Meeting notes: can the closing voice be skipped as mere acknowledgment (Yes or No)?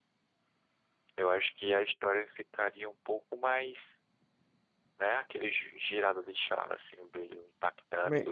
No